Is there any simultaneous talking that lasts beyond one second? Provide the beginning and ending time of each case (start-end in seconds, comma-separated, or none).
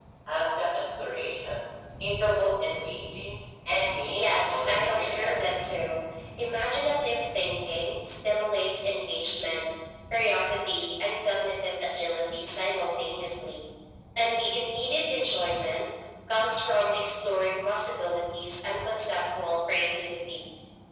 4.1-5.5